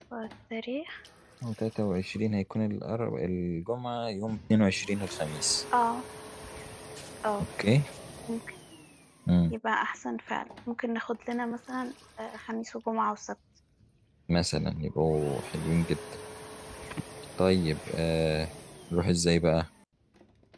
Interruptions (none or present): none